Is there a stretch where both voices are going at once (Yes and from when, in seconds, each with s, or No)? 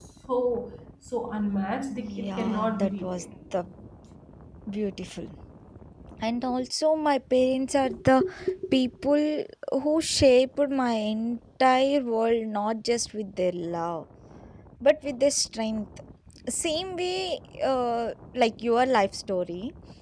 Yes, from 1.9 s